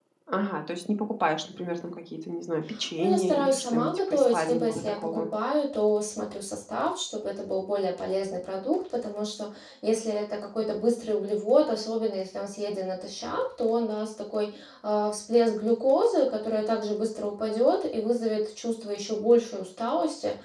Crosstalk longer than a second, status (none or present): present